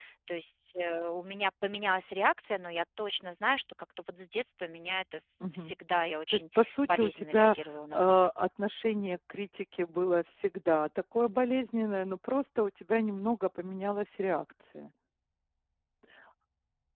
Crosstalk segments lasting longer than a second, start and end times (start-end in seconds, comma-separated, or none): 6.3-7.6